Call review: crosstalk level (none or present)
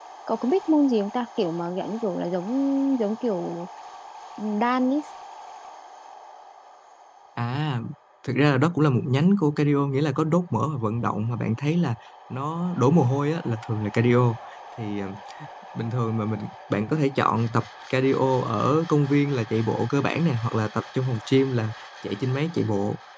none